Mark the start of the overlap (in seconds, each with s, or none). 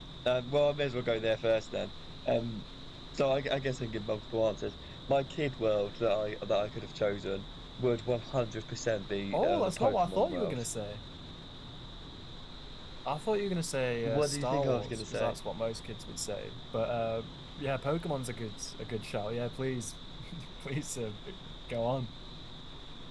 9.3 s